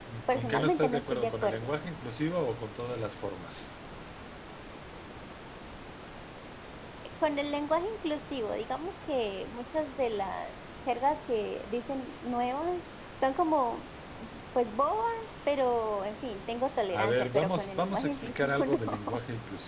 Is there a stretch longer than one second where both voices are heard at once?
Yes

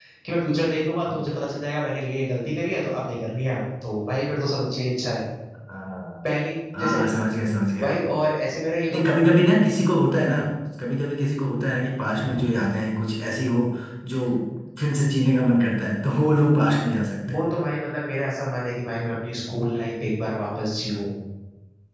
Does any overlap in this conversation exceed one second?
No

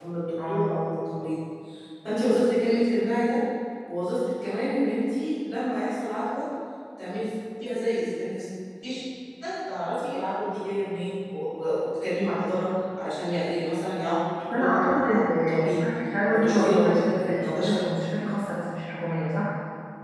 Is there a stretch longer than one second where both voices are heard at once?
Yes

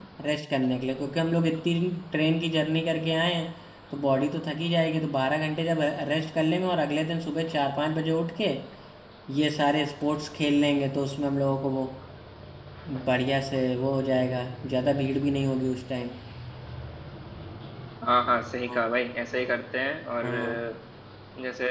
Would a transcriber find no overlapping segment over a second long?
Yes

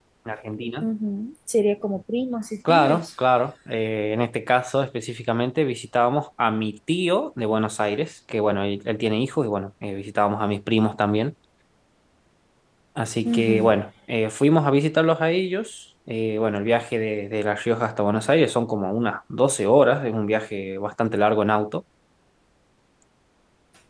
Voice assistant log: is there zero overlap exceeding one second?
Yes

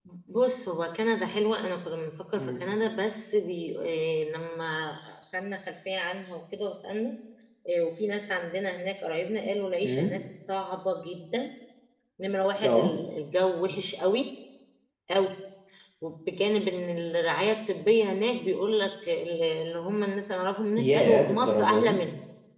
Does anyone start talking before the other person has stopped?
Yes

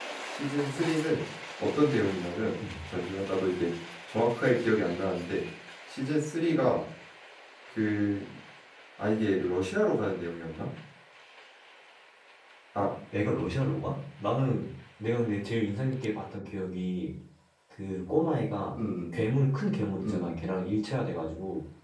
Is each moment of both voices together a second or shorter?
Yes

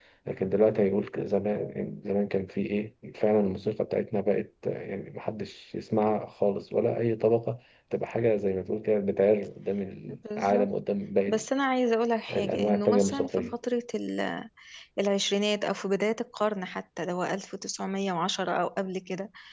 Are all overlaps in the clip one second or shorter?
No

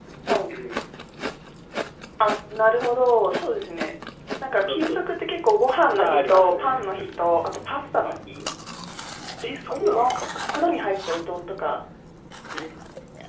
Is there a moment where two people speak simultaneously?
Yes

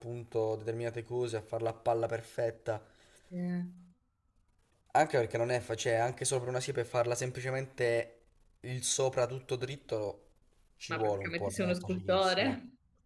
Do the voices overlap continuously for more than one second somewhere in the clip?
Yes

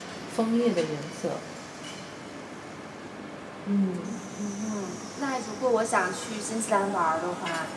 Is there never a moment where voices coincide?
Yes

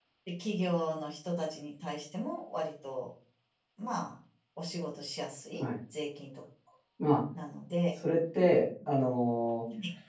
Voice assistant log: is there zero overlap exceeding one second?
Yes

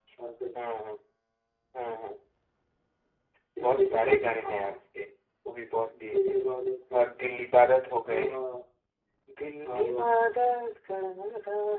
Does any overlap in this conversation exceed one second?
Yes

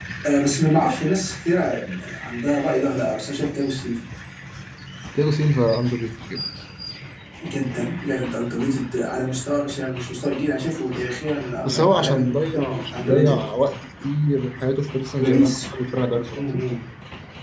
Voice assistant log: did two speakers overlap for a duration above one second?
Yes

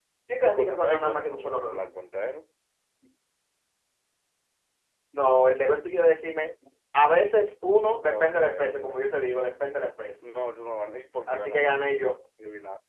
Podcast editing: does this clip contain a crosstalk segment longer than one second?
Yes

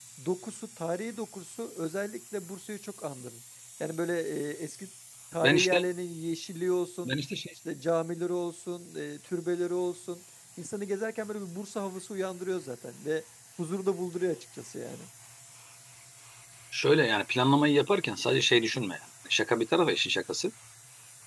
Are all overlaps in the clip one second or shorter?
Yes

